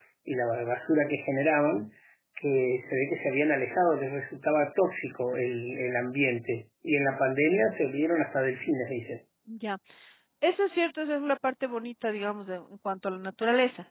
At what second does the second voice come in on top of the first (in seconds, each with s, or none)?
none